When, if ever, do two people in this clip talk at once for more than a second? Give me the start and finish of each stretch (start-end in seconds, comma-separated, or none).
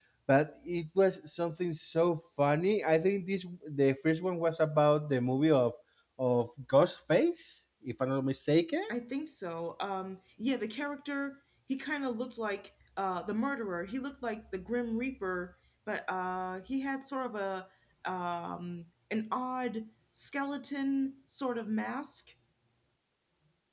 none